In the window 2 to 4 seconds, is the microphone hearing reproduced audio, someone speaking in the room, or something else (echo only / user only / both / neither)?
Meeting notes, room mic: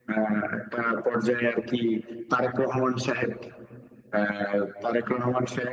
echo only